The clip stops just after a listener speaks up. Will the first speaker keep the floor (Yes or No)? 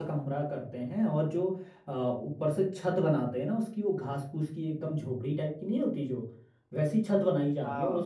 Yes